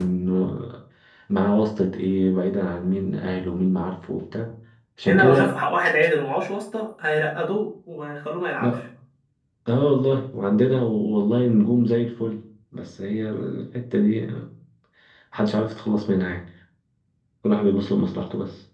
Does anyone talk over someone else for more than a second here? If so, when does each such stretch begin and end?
none

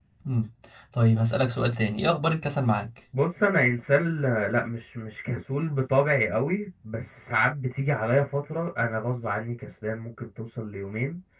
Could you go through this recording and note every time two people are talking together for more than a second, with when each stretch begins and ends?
none

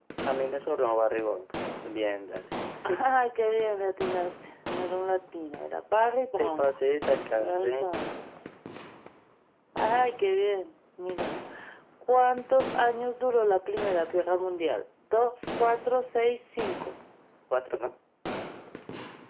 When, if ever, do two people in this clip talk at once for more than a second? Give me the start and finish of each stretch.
none

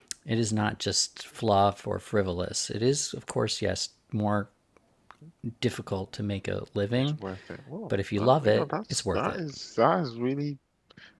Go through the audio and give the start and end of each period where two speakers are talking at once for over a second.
8.2-9.4

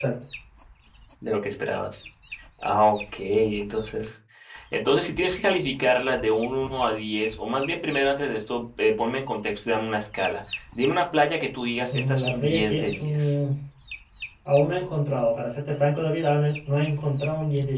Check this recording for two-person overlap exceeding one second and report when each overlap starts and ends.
11.9-13.3

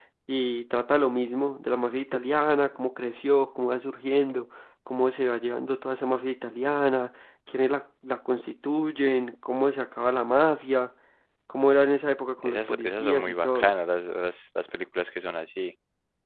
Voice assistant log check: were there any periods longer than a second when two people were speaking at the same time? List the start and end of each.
12.4-13.7

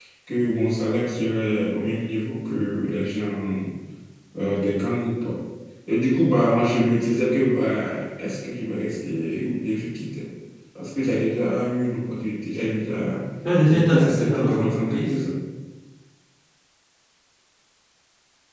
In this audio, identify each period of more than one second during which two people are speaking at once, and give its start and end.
13.7-15.1

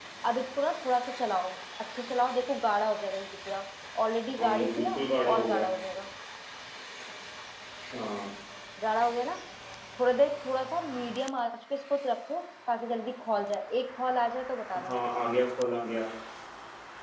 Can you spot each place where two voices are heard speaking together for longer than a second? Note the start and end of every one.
4.4-5.7

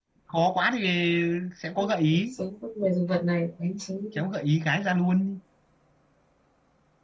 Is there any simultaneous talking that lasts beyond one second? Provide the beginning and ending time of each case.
none

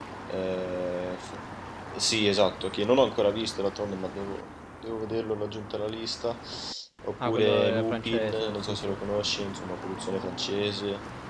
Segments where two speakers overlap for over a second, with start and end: 7.3-9.0

